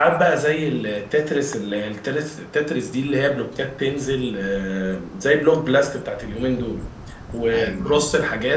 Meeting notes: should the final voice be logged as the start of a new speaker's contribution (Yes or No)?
No